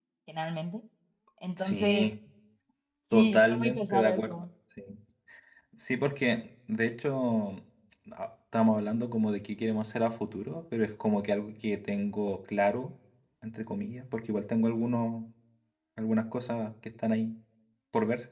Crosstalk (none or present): present